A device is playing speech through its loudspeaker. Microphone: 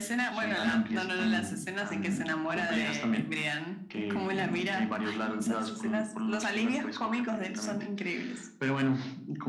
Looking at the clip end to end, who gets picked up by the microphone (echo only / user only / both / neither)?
echo only